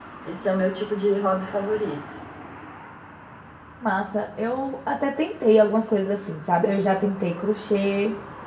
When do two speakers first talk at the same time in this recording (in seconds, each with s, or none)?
none